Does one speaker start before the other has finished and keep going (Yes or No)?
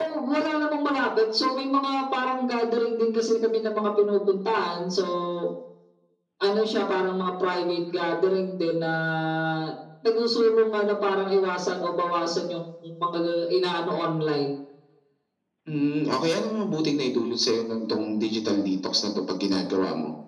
No